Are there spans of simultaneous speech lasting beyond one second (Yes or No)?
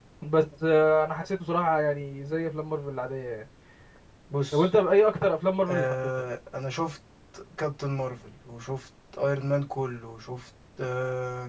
No